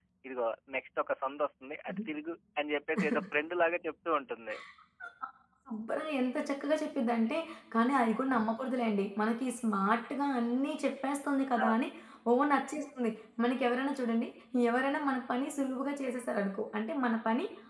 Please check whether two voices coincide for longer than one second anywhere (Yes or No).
No